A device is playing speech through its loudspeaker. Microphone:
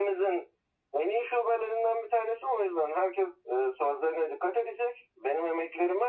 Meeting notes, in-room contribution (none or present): none